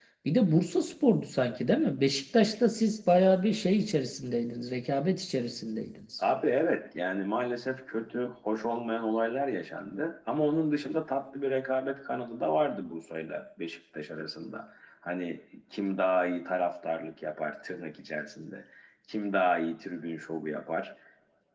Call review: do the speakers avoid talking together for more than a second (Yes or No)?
Yes